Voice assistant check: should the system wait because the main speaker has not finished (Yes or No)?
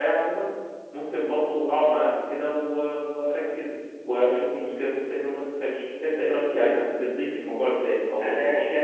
No